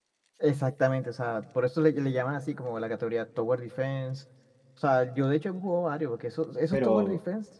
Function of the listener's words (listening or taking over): listening